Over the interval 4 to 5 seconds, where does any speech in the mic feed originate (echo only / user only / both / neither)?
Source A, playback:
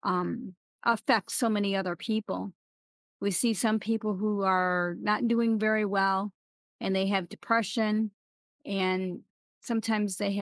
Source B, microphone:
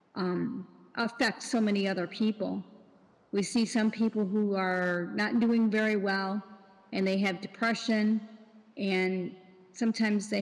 echo only